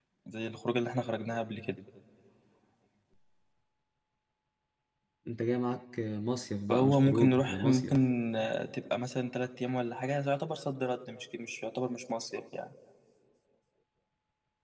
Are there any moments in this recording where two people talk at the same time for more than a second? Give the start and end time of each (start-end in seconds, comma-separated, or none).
6.7-8.0